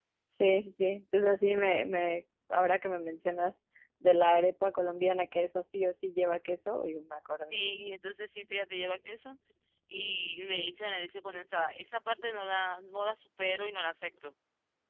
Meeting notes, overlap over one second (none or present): none